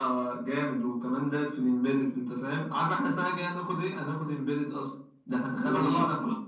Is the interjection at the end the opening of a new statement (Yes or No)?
No